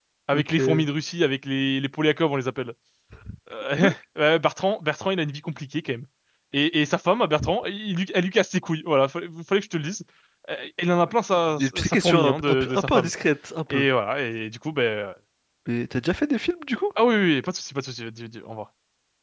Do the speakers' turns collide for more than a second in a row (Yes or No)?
Yes